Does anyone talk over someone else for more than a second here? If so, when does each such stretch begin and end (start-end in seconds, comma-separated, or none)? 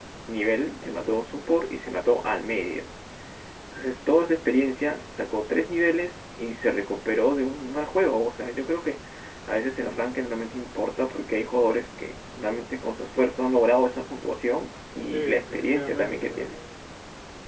15.1-16.6